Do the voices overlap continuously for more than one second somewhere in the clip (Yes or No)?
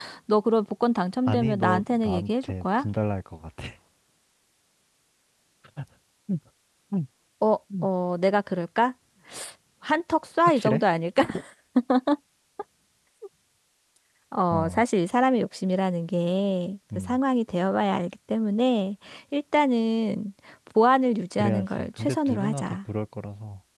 Yes